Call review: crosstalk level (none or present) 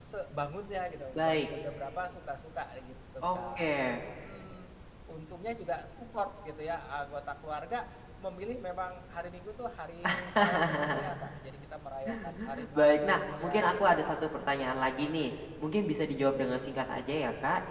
present